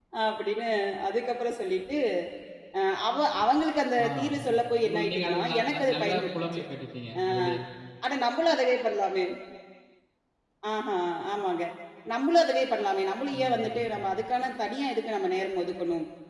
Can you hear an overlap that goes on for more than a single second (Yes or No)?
Yes